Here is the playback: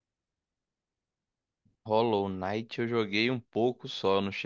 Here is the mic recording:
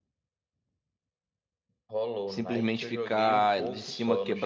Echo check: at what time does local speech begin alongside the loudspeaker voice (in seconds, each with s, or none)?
2.3 s